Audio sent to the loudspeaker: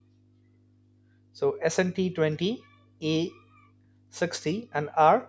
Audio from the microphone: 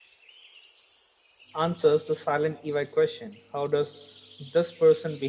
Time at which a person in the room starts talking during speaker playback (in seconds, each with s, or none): 1.6 s